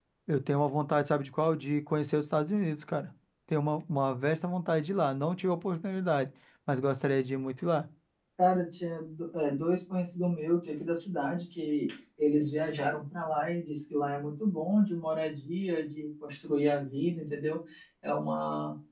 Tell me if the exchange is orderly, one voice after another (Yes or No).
Yes